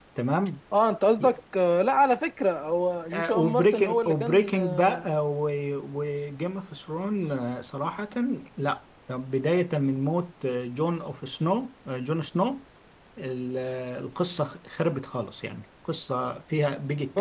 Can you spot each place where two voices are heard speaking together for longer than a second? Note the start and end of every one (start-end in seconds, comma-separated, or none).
3.1-5.1